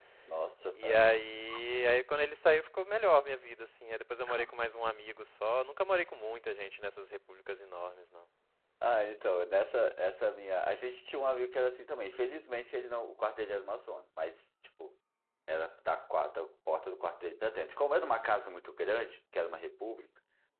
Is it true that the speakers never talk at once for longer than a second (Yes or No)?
Yes